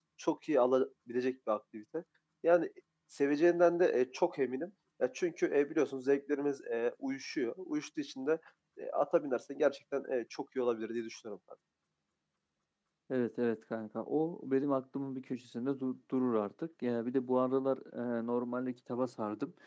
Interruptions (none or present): none